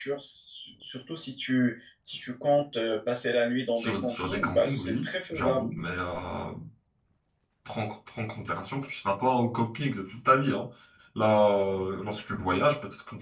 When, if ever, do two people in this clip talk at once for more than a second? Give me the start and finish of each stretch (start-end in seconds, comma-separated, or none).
3.8-5.7